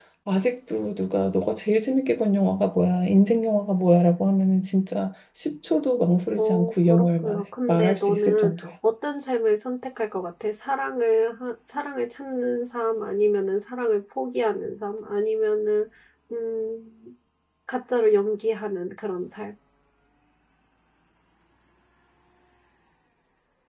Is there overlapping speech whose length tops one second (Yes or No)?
Yes